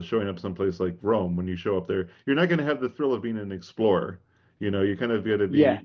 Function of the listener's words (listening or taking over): listening